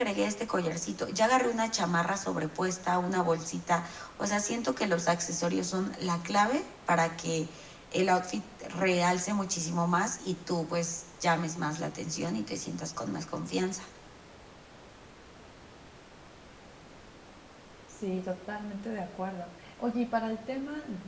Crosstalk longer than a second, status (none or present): none